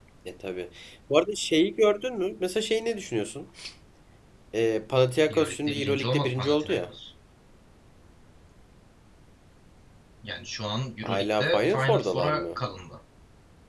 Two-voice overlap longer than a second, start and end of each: 5.3-6.9, 11.0-12.6

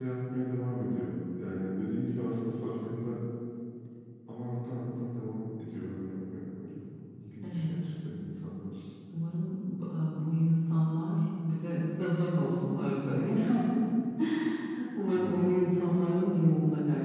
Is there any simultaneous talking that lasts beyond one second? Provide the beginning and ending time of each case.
none

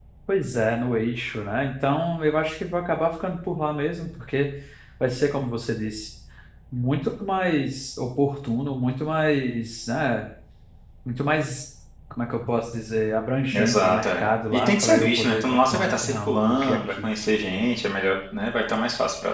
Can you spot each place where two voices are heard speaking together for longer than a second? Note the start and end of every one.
13.5-17.1

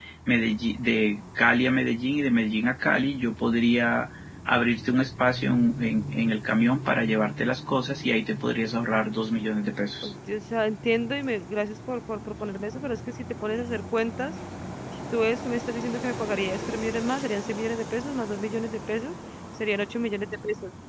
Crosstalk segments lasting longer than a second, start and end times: none

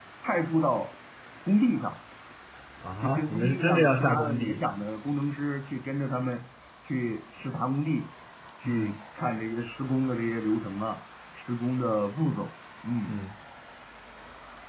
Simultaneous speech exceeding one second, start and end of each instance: 3.0-4.6

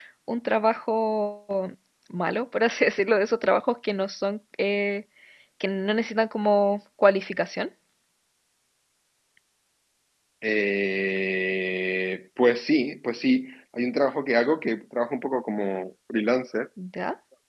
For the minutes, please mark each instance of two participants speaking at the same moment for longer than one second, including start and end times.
none

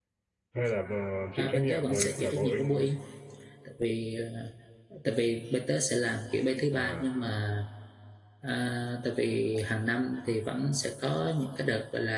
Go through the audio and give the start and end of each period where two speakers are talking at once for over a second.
1.4-2.9

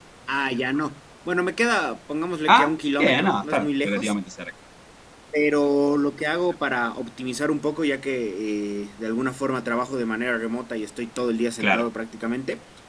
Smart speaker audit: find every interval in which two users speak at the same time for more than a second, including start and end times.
2.5-4.1

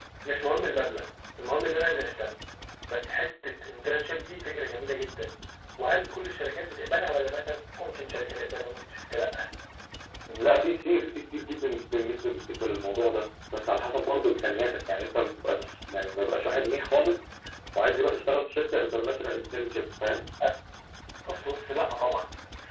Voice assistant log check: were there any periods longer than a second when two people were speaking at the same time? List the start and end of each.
none

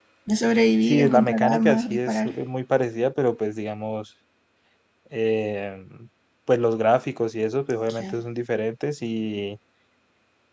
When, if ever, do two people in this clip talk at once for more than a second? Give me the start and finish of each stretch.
0.9-2.3

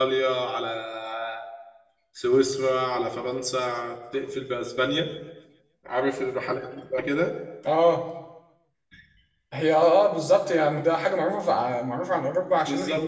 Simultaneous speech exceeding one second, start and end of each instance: none

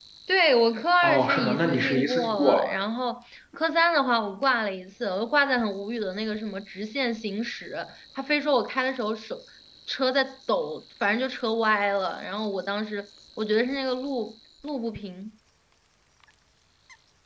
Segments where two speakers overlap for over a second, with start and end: 1.0-2.8

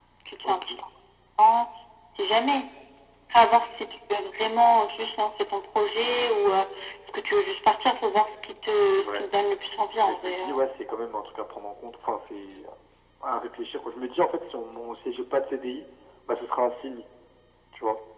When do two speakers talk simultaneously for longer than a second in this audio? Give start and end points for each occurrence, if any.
none

